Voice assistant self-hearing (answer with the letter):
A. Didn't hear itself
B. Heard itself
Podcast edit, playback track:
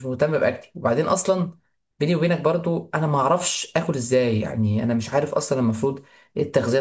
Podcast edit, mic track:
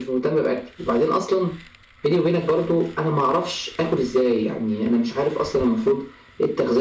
B